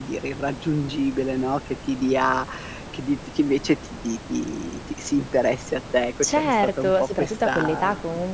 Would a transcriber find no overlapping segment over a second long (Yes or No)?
No